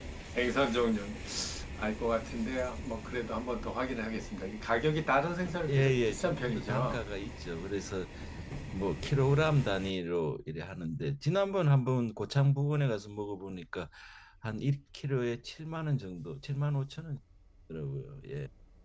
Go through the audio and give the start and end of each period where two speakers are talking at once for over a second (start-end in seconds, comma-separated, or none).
5.7-7.0